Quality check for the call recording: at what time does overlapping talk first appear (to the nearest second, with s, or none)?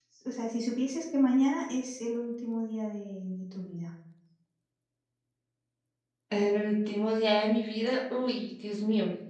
none